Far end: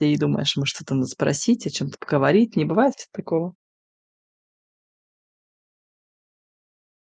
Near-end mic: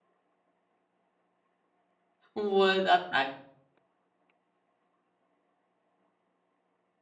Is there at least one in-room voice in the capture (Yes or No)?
Yes